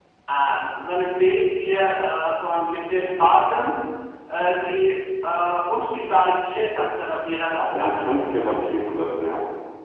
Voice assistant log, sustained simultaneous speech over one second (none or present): none